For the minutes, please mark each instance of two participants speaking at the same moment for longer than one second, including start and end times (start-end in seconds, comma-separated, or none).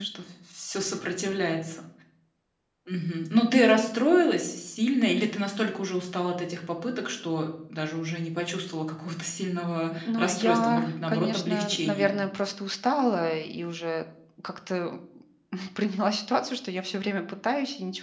9.9-12.2